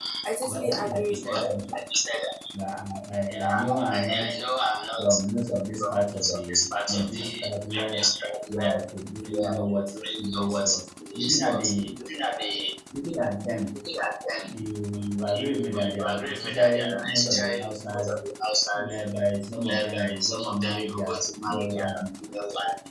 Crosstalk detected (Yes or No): Yes